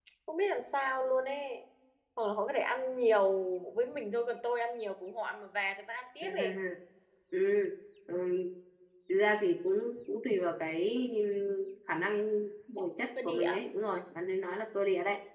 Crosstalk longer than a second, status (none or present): none